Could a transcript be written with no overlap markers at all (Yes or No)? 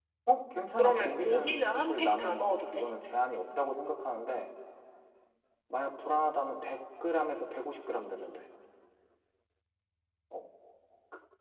No